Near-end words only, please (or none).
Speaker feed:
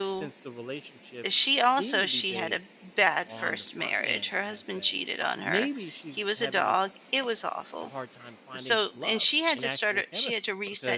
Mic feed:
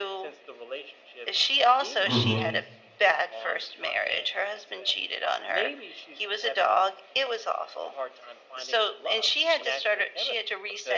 hmm